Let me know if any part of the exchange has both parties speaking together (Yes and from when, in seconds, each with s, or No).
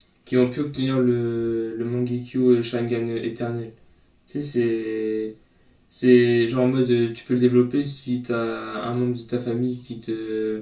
No